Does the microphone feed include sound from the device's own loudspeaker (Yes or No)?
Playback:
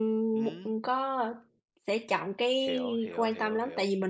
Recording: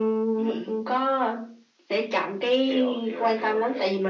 Yes